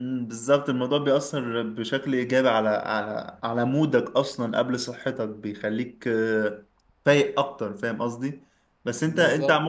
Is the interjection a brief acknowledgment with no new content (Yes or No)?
Yes